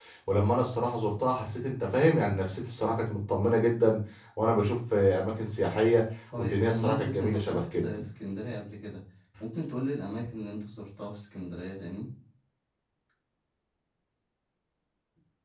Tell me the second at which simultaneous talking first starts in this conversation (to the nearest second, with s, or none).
6 s